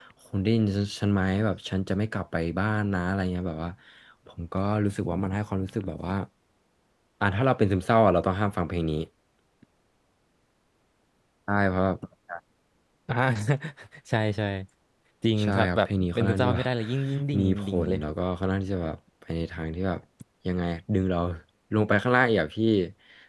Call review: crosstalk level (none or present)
present